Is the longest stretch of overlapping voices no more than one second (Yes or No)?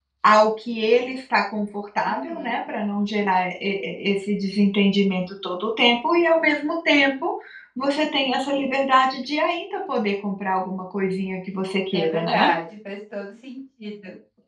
Yes